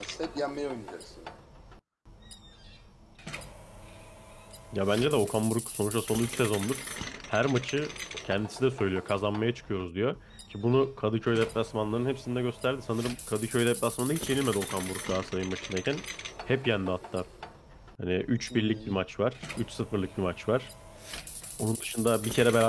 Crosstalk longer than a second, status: none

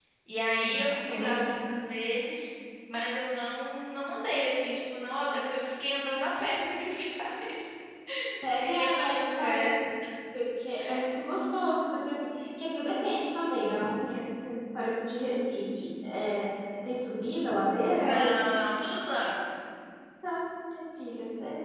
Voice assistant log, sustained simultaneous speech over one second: present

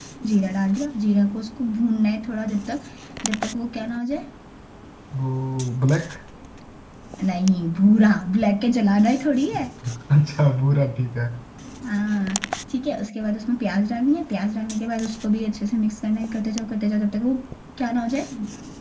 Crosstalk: none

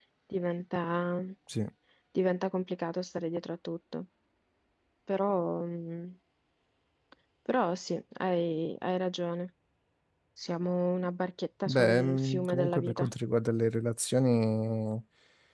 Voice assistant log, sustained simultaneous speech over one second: present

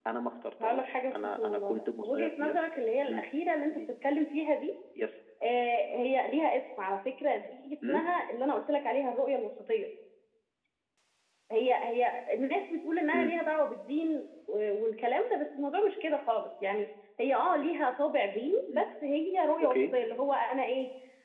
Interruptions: present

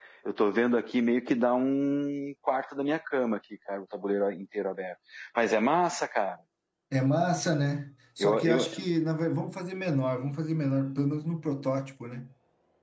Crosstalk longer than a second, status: none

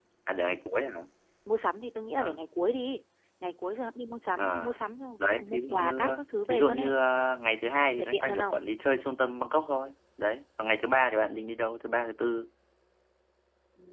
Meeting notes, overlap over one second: present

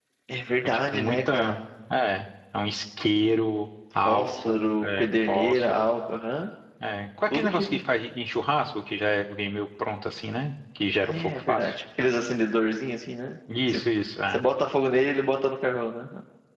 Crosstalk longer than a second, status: present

